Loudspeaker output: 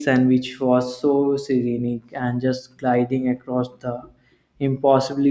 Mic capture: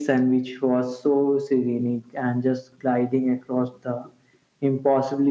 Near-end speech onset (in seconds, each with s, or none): none